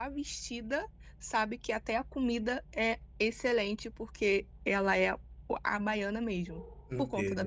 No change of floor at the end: No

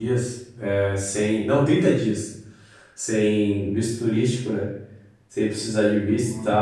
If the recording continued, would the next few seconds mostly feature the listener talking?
No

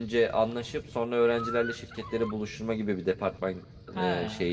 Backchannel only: Yes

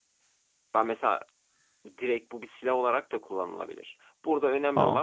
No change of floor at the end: Yes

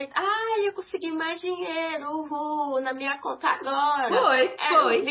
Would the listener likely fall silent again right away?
No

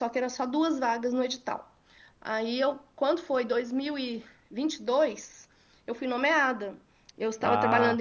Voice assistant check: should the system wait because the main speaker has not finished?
Yes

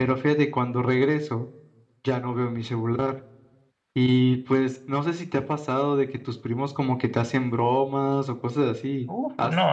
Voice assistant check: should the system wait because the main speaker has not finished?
No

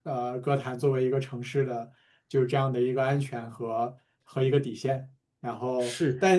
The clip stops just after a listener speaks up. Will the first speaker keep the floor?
Yes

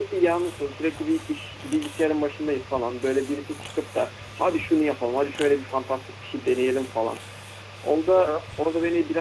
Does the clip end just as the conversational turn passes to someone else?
No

